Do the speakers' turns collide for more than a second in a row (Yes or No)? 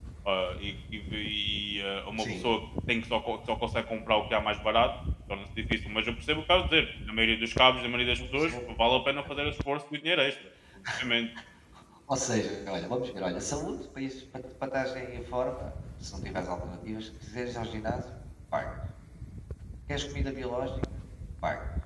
No